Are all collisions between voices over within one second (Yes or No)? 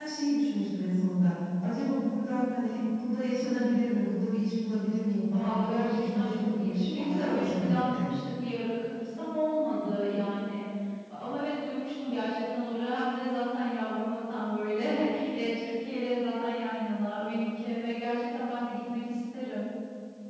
No